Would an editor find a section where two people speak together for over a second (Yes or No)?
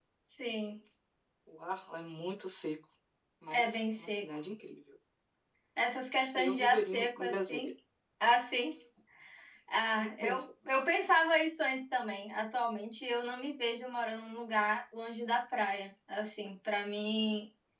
Yes